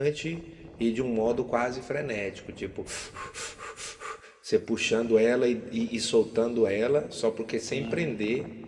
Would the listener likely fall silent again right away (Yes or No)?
Yes